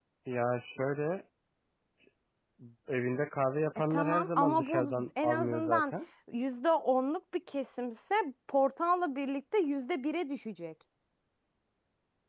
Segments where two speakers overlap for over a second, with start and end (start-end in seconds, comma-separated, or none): 3.9-5.8